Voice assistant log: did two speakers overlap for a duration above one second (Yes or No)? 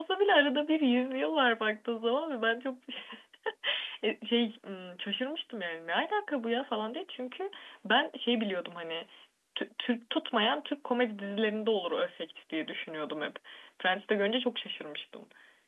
No